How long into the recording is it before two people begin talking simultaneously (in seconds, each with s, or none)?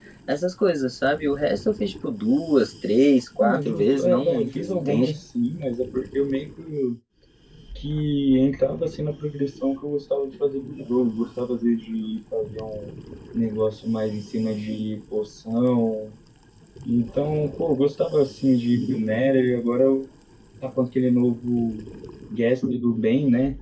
3.4 s